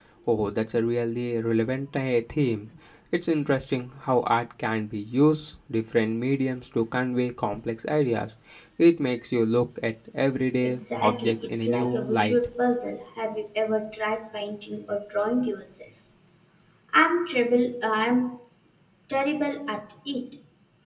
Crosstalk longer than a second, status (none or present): present